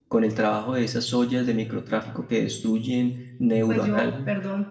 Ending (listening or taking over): taking over